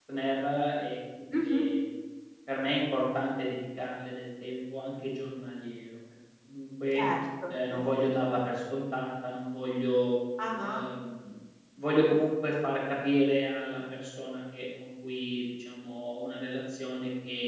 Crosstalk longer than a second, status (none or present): none